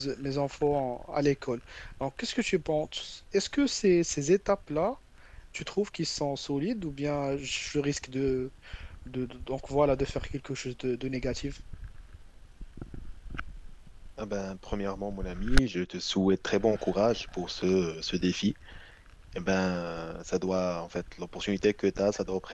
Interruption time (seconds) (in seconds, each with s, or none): none